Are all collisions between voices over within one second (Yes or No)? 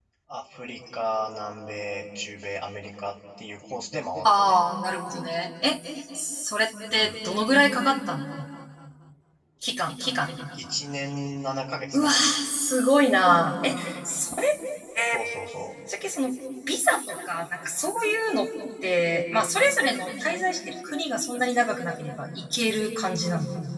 Yes